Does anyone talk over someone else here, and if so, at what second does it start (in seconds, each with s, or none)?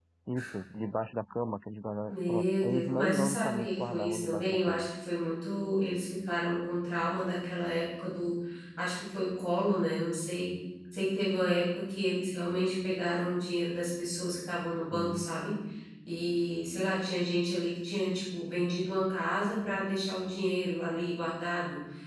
2.1 s